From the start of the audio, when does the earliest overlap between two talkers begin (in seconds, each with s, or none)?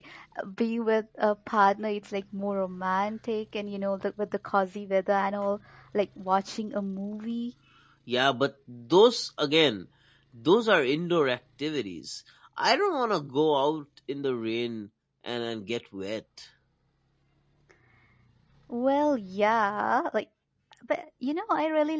none